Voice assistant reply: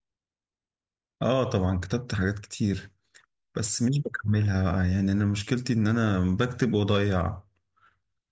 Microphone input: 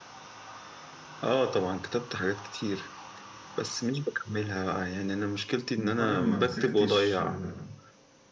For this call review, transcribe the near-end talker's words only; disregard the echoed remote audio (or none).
إن هو انا ما مسكتش آه،